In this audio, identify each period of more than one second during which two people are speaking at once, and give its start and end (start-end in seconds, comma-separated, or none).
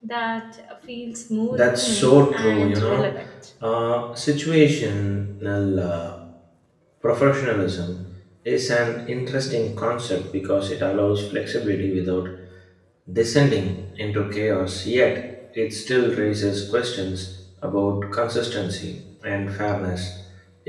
1.5-3.1